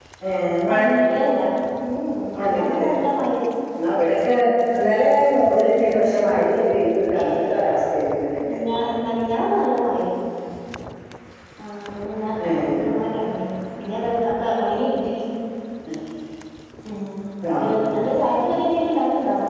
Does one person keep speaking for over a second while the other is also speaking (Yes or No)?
No